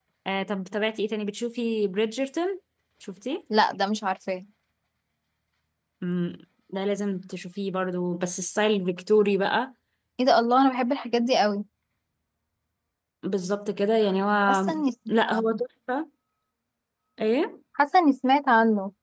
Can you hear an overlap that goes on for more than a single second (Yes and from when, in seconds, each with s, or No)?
No